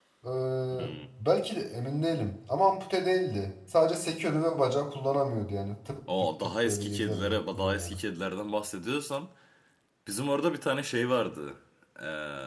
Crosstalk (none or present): present